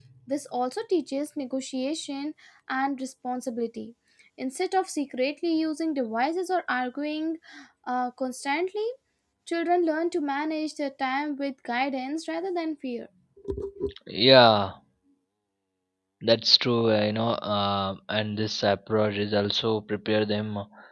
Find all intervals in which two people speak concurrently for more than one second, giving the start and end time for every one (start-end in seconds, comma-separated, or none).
none